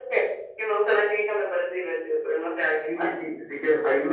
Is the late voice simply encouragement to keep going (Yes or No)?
No